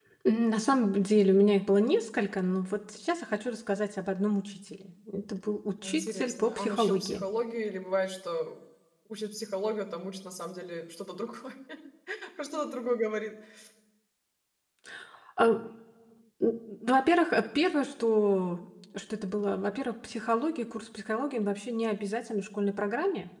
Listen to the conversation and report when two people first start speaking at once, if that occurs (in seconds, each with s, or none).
5.8 s